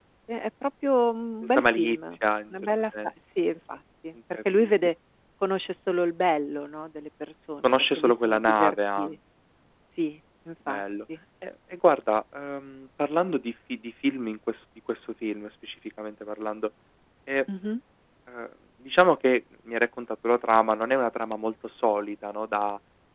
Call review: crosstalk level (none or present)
present